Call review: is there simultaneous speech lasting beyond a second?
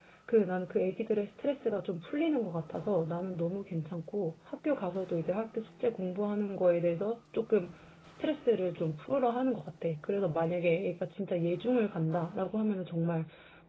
No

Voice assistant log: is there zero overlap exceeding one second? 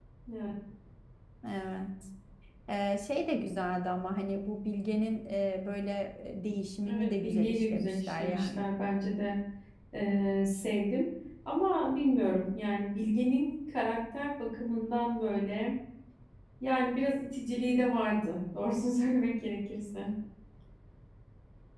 No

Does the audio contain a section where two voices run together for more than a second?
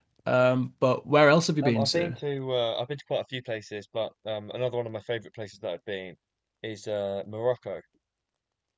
No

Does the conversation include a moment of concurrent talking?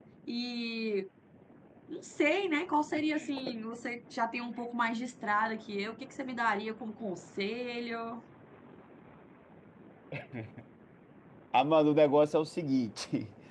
No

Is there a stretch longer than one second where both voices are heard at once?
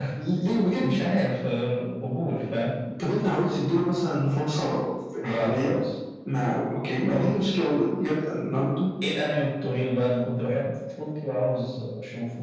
No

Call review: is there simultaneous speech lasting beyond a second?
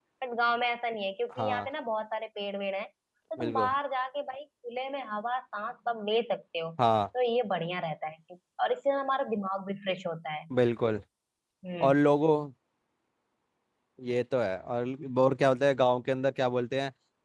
No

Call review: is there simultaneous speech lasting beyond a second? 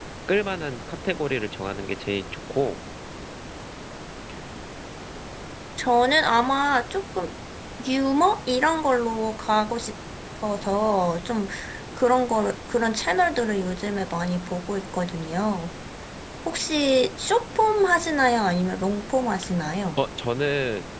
No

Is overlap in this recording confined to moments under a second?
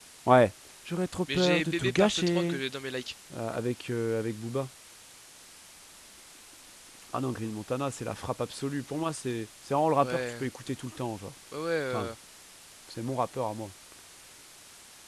No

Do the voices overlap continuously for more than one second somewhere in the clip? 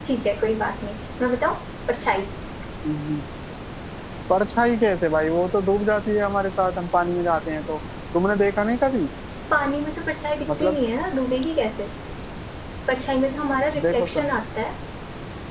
No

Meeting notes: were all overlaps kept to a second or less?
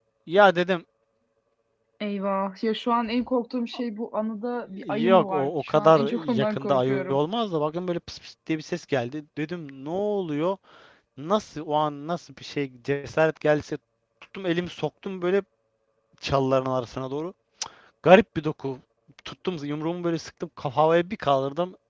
No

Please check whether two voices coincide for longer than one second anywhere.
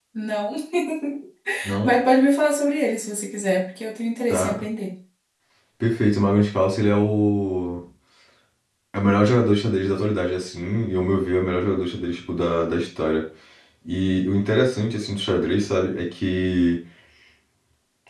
No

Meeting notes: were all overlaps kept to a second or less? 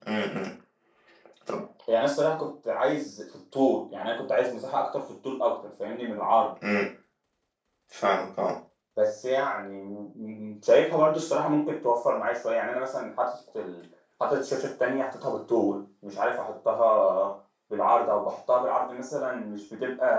Yes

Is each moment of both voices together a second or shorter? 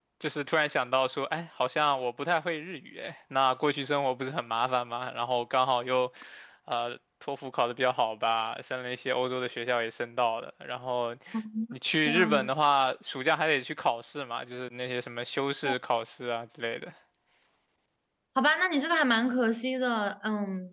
Yes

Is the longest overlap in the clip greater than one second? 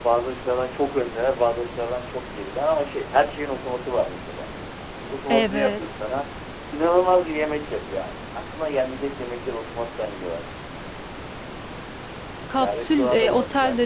Yes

